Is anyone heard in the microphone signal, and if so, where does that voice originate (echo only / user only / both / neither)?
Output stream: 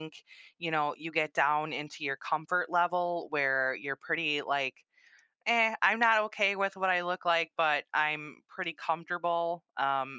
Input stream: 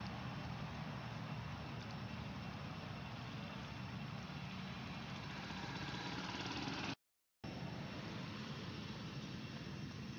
neither